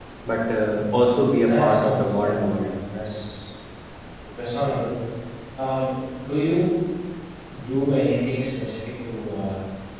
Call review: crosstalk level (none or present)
present